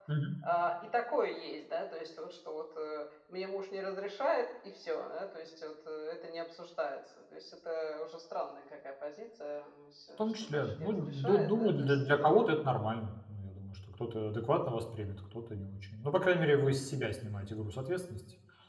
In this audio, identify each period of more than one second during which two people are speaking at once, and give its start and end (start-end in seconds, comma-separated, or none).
10.2-12.3